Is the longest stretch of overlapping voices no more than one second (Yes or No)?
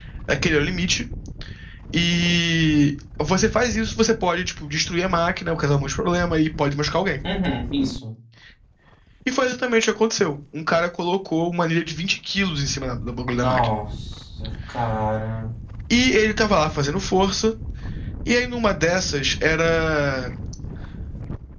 Yes